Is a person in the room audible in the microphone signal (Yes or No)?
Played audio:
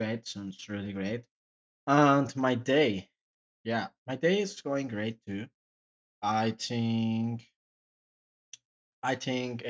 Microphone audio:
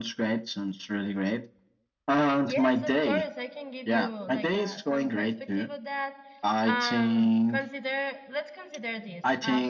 Yes